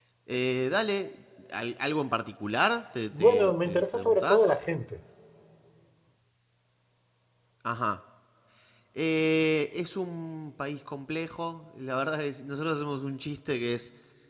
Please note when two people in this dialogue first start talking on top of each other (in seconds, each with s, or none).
3.1 s